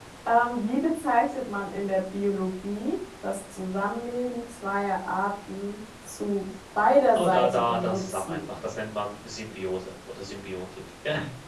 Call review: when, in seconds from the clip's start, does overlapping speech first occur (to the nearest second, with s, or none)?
7 s